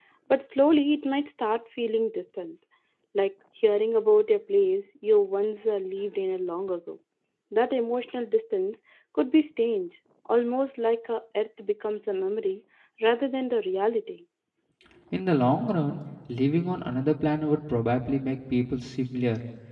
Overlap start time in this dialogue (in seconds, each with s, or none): none